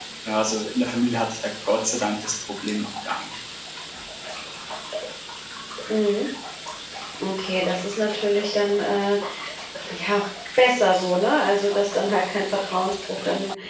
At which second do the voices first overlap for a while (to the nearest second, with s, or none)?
none